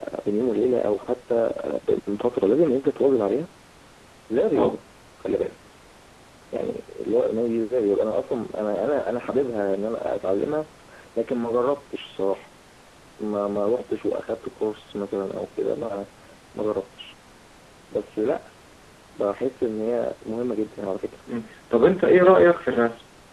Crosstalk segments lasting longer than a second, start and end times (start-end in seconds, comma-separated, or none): none